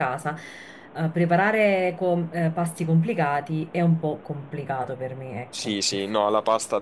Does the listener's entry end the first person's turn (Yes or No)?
Yes